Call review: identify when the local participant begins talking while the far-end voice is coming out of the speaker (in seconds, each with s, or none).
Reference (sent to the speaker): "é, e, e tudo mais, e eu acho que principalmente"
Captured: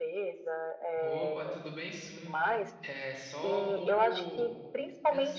1.0 s